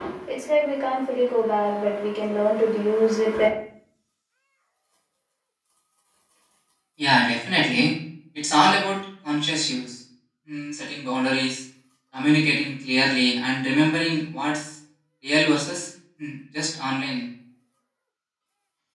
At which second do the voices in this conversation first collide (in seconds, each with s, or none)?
none